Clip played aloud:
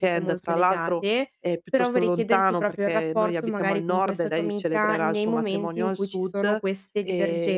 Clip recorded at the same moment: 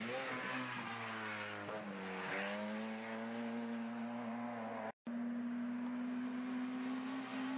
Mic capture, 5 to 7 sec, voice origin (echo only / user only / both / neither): neither